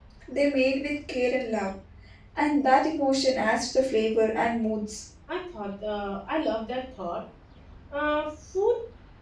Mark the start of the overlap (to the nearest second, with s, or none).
none